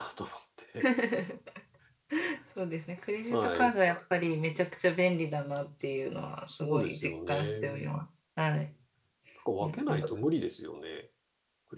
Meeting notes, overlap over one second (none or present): present